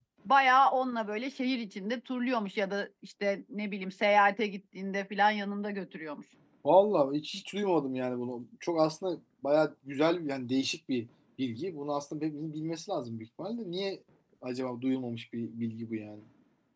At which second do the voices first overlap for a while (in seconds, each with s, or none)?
none